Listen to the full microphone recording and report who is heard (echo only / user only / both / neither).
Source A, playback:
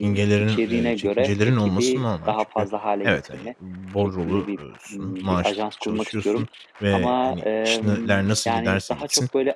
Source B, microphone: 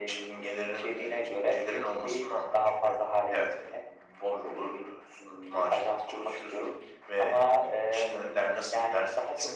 echo only